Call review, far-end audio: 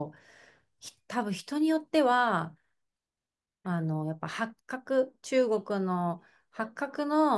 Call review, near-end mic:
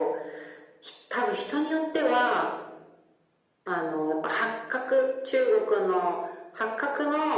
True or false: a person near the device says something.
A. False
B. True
A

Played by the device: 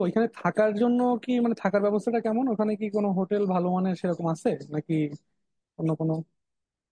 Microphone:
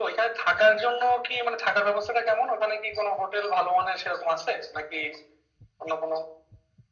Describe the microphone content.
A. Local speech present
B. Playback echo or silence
B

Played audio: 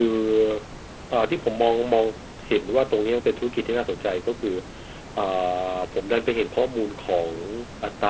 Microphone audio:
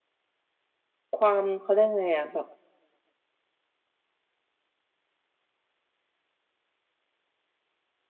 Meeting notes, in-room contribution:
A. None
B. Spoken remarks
B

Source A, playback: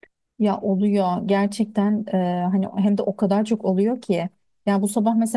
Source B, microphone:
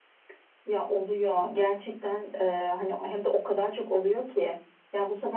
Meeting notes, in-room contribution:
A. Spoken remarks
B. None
B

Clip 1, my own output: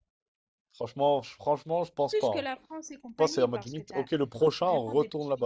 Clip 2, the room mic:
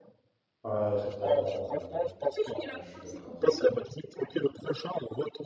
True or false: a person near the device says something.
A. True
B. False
A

